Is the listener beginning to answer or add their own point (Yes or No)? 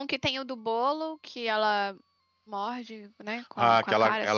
Yes